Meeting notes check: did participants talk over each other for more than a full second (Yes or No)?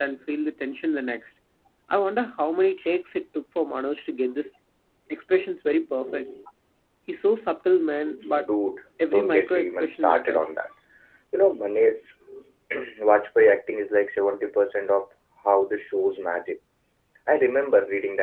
Yes